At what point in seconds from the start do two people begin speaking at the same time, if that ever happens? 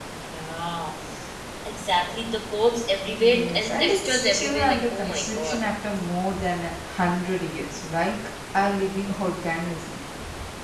3.2 s

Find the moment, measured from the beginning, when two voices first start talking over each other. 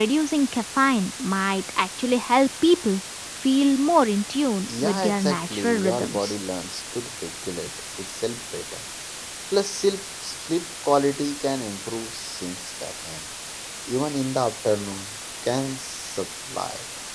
4.7 s

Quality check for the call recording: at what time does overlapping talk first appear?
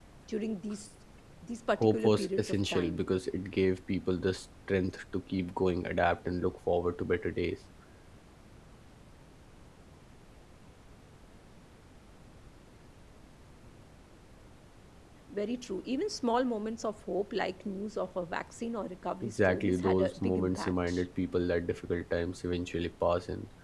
1.8 s

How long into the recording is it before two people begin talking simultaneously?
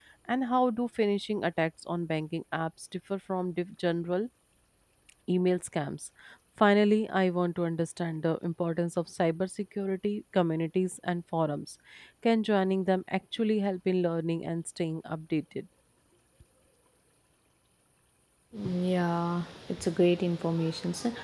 none

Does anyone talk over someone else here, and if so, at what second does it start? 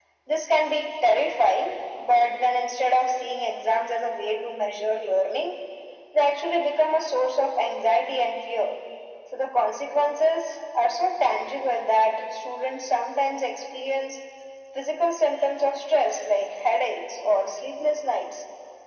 none

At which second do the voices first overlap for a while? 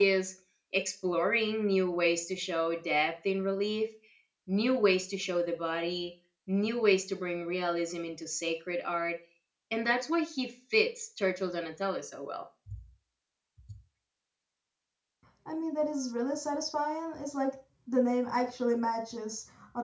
none

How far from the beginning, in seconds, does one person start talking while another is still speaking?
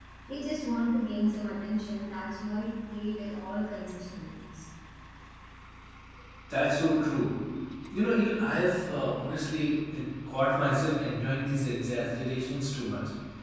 none

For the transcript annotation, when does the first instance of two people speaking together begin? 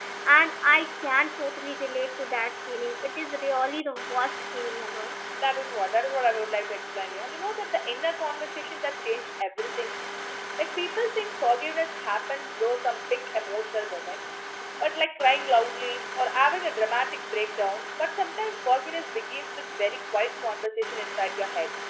none

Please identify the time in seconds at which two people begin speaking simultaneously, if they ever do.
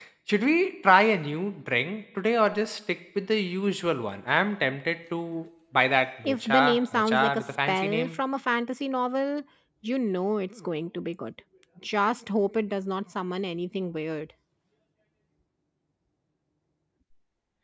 6.2 s

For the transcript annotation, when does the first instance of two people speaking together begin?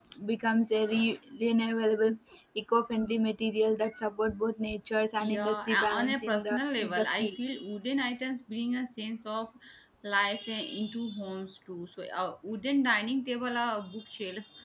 5.2 s

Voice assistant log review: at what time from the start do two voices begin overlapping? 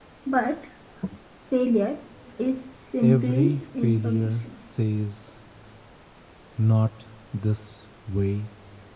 3.0 s

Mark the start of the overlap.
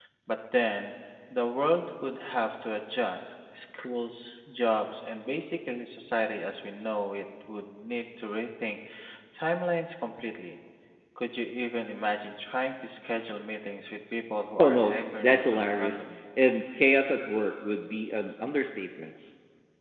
14.6 s

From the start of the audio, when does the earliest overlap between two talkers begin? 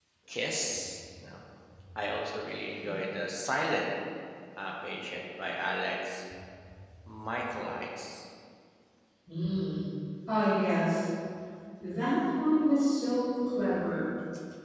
none

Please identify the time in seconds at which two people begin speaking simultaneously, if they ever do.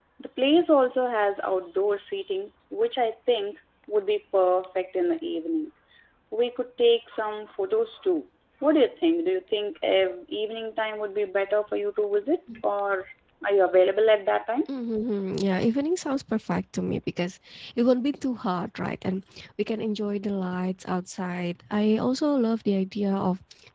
none

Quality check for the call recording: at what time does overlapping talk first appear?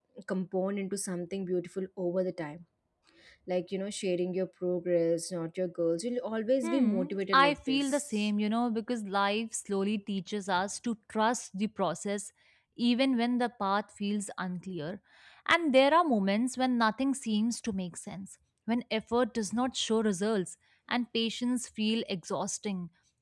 6.6 s

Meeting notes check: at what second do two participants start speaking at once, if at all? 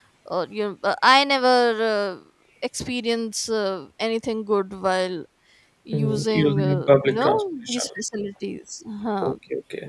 5.9 s

